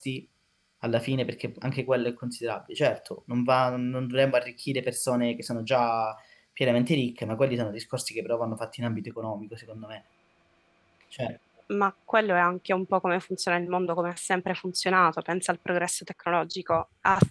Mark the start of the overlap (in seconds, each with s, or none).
none